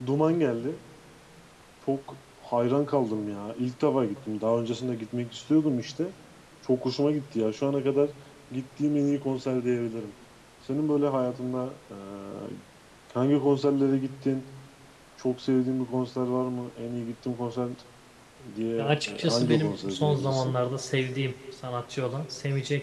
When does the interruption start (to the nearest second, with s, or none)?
19 s